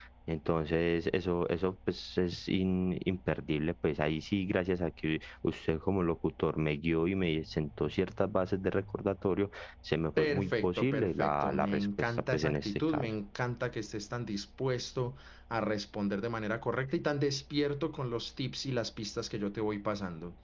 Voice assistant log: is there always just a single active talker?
No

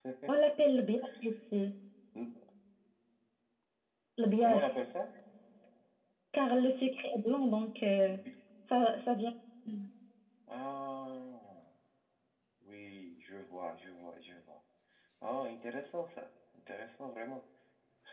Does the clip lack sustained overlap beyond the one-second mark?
Yes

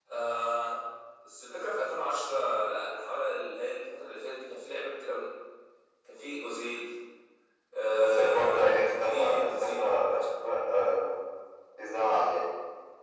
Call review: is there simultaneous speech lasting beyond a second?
Yes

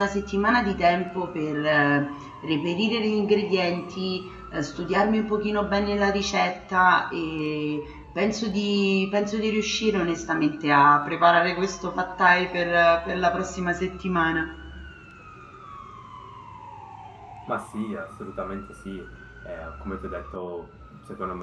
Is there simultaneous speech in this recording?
No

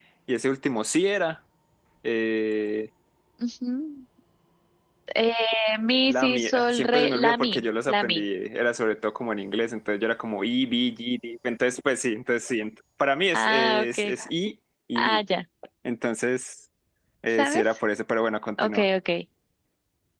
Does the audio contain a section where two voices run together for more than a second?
Yes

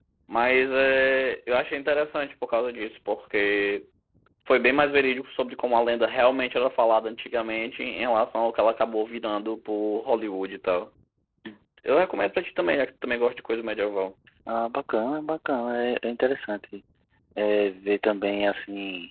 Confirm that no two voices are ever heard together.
Yes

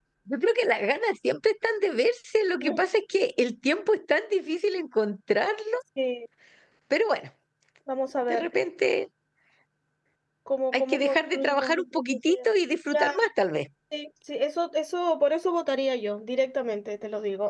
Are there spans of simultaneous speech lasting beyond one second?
Yes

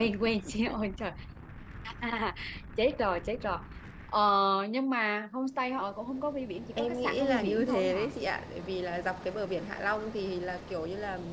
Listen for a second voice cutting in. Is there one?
Yes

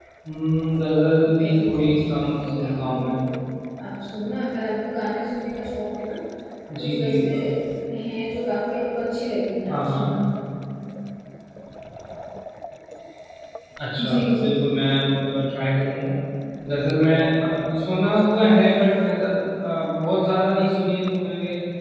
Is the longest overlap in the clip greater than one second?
Yes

